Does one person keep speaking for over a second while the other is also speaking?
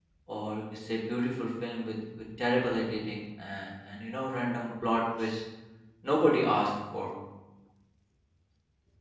No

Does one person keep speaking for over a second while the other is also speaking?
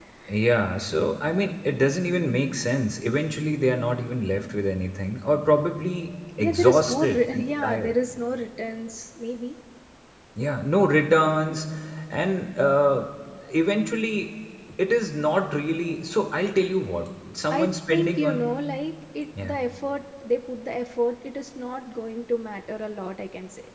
Yes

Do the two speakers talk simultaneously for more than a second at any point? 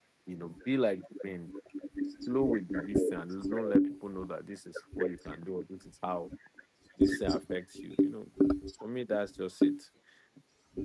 Yes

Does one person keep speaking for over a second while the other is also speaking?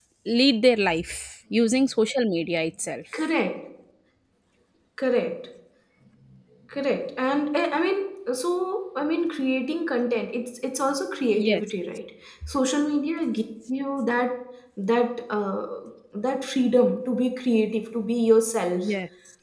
No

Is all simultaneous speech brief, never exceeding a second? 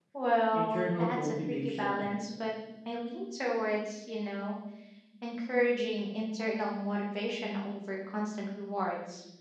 No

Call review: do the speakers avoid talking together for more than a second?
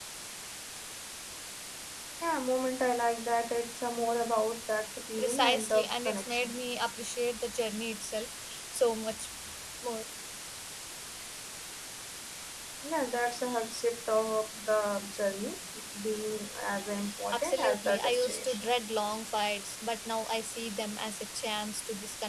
No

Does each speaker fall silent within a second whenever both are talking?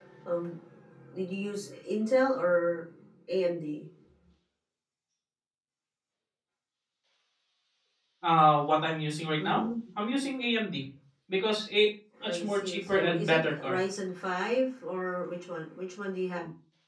No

